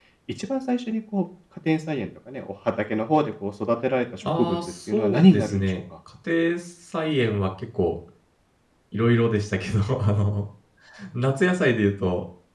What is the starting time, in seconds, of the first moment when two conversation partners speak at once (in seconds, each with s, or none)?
4.2 s